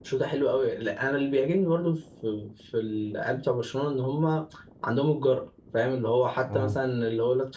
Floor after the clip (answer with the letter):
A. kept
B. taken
A